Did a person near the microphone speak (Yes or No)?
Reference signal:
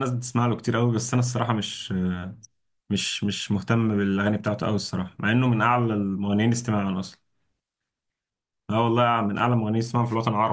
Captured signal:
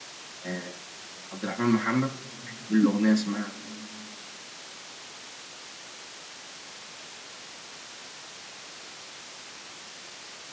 Yes